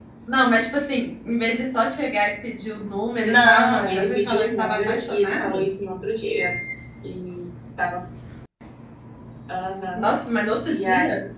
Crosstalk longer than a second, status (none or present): present